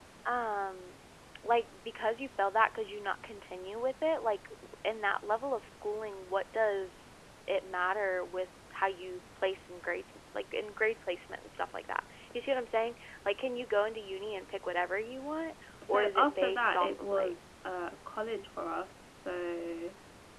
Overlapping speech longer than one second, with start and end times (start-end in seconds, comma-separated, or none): 15.9-17.3